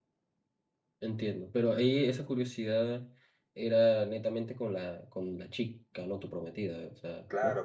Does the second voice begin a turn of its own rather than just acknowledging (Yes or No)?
Yes